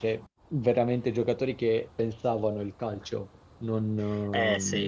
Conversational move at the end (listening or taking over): taking over